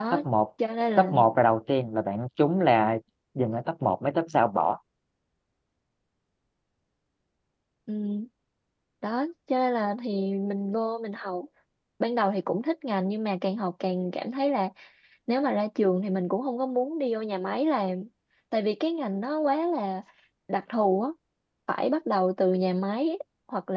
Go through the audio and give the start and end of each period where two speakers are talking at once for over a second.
none

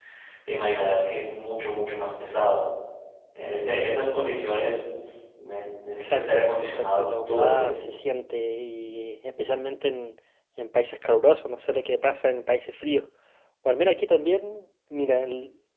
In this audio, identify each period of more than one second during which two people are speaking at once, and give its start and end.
5.9-7.7

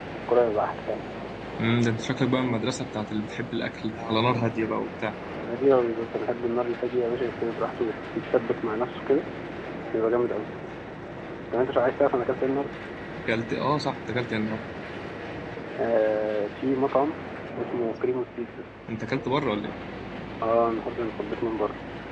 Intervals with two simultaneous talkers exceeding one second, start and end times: none

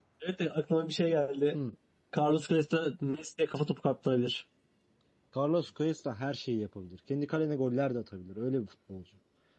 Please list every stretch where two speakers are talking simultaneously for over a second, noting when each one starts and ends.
none

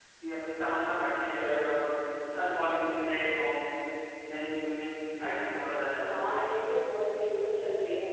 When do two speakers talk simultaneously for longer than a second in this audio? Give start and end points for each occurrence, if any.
none

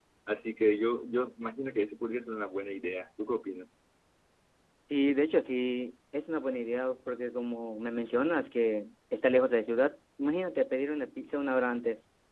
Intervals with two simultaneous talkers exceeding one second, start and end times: none

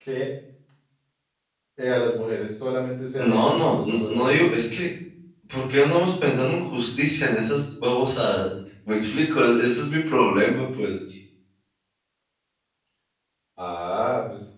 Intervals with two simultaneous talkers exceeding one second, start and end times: 3.2-4.4

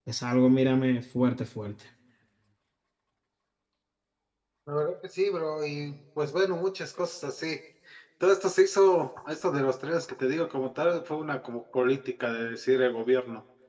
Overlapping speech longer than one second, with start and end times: none

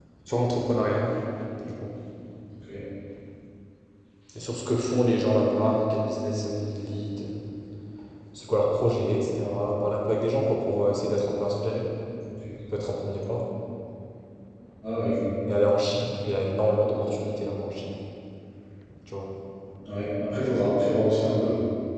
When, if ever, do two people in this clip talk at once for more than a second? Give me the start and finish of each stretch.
none

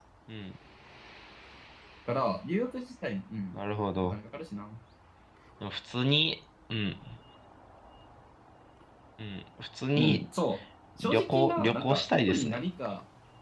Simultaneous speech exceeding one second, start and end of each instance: 11.0-12.6

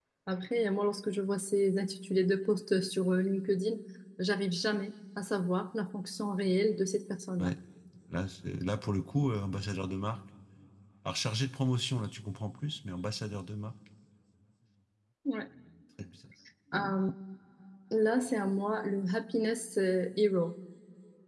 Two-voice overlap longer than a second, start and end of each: none

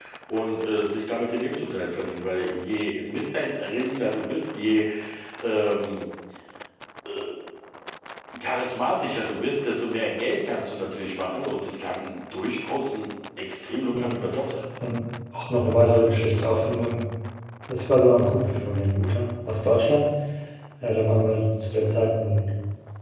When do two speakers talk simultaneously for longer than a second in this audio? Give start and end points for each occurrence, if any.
none

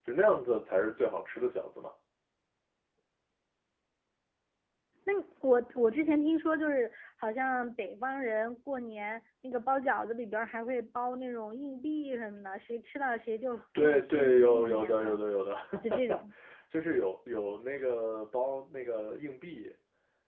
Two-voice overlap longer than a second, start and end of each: 13.8-15.2

